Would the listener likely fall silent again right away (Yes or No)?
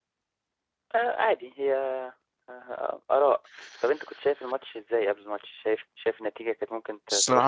No